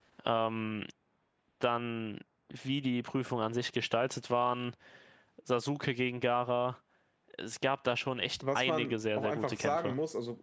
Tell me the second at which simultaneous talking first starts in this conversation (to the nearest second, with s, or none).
8 s